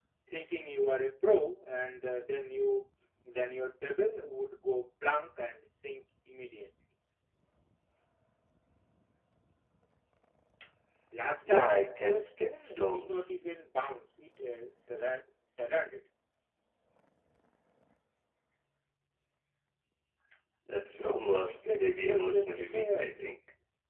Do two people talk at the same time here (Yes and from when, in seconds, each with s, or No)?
Yes, from 11.4 s